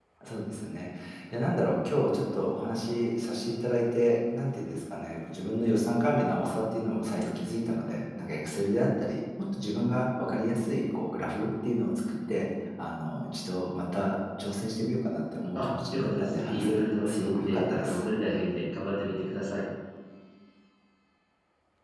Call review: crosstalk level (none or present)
present